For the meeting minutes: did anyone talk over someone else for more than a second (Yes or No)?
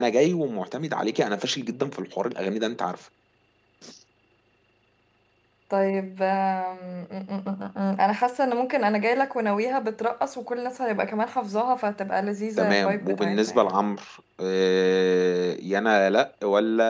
Yes